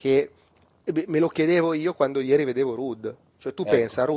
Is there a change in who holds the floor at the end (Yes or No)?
No